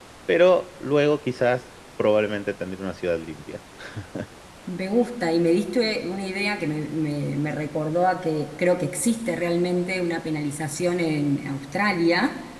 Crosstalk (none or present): none